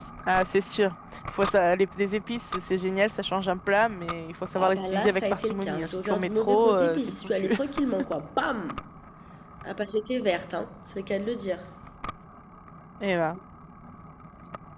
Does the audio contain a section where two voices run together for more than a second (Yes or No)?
Yes